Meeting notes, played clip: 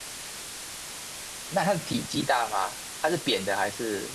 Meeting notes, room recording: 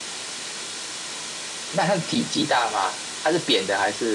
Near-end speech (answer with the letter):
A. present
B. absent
B